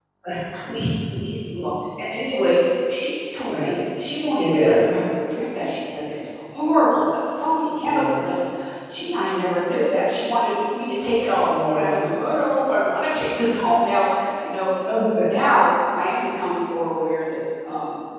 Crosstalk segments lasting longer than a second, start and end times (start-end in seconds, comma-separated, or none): none